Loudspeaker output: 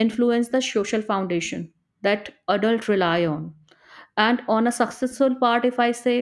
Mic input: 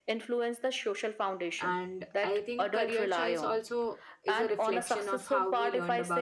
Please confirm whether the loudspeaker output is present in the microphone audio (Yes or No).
Yes